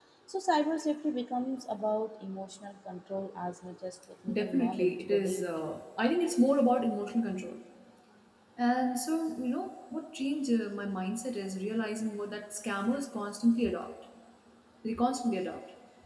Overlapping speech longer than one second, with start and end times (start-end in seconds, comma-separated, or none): 4.3-5.7